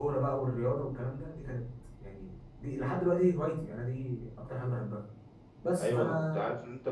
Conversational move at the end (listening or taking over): taking over